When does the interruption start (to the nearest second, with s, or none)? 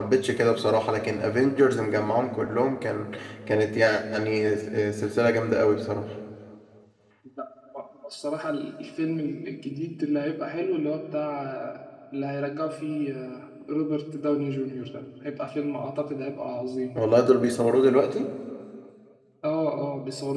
none